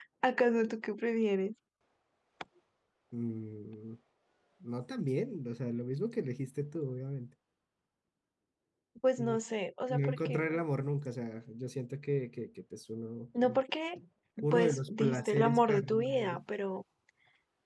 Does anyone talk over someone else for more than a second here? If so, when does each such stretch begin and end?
14.5-16.4

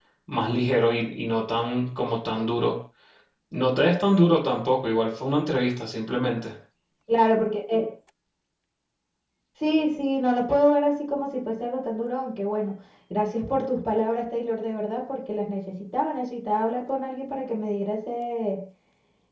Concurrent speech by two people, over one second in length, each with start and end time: none

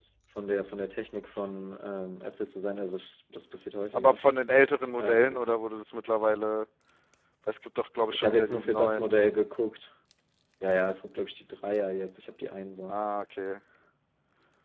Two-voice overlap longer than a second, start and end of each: 8.1-9.3

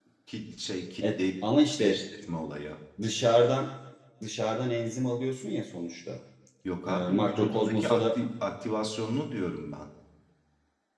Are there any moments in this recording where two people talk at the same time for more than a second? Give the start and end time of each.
6.9-8.2

